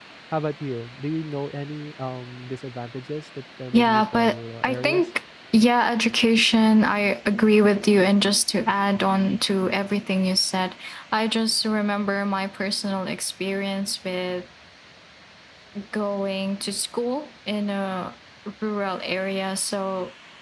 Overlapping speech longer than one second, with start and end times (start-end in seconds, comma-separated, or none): 3.7-5.1